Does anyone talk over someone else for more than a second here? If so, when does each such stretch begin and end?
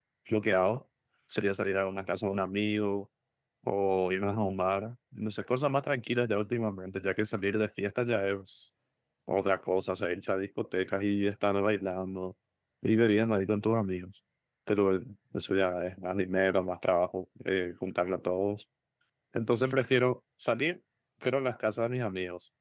none

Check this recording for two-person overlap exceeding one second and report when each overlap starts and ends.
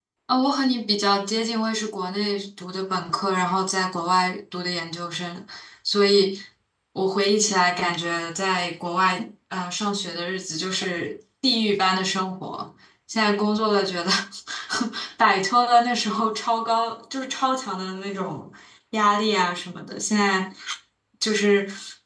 none

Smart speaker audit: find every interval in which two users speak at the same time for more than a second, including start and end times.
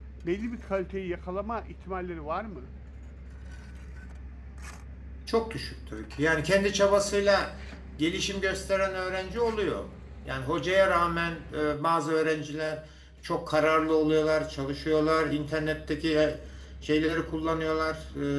none

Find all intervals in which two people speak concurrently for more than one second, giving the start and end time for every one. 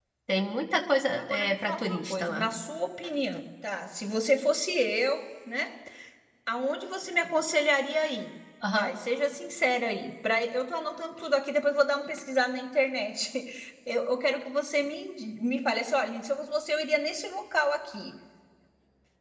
1.2-2.5

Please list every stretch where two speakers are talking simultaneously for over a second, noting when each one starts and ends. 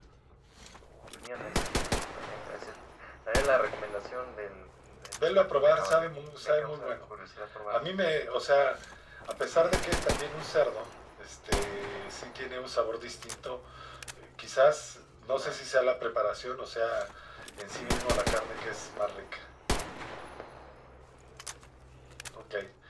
5.1-7.0

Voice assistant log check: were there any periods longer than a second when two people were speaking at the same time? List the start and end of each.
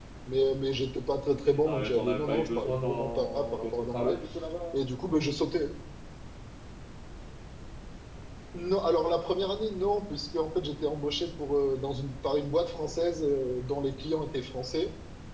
1.7-4.2

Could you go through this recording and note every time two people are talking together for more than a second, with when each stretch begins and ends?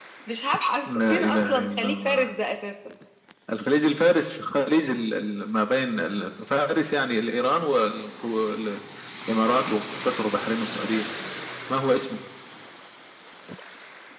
0.9-2.3

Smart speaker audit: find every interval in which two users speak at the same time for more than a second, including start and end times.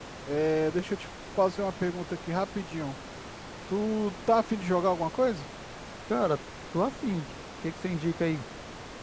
none

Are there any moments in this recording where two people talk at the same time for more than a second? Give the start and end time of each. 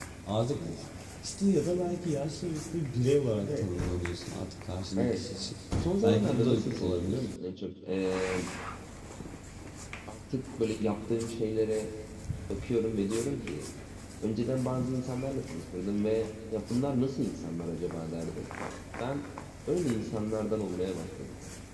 6.0-7.2

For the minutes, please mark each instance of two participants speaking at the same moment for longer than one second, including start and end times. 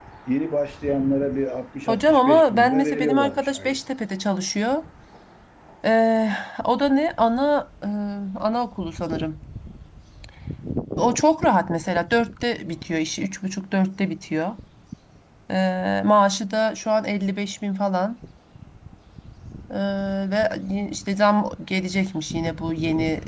1.9-3.8

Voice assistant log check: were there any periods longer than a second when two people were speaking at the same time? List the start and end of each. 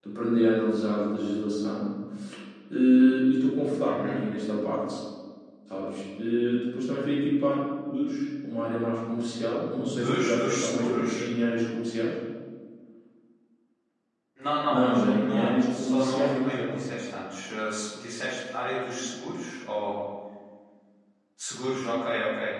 10.0-11.2, 14.7-16.9

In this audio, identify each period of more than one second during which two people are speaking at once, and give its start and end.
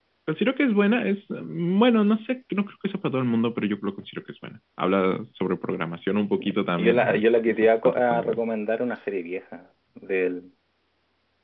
6.4-8.4

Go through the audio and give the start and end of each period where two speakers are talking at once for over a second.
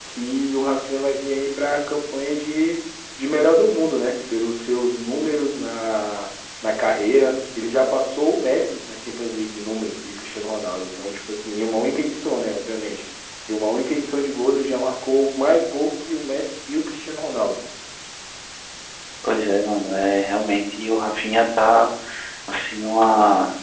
none

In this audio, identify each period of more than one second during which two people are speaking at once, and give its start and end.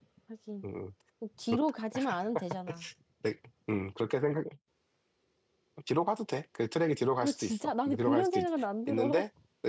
7.2-8.4

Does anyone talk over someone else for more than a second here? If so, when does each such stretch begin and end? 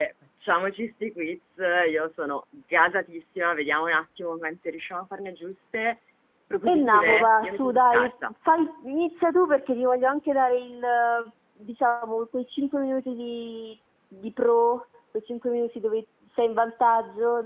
6.6-8.1

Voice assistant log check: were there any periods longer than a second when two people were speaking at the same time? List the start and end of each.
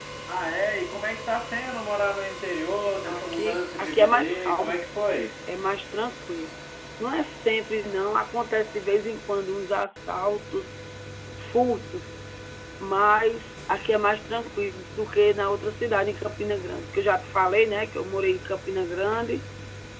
3.1-4.8

